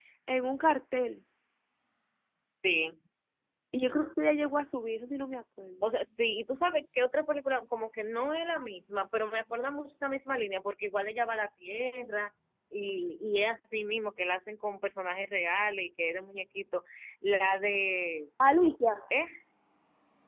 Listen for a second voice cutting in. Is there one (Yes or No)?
No